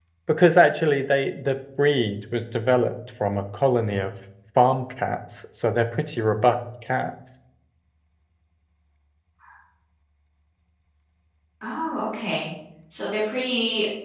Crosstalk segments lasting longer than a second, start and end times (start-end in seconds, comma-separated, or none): none